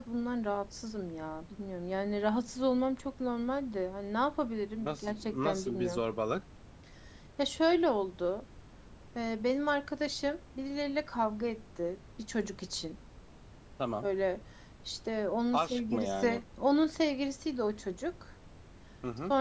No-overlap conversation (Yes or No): No